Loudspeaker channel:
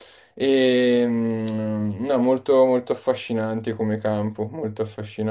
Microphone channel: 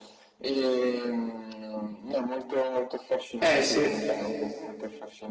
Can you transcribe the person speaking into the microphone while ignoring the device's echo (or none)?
Eh sì.